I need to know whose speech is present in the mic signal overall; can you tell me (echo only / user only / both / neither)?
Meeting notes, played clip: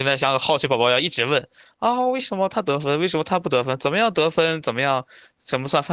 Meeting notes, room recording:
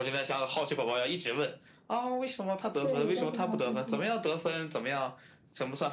both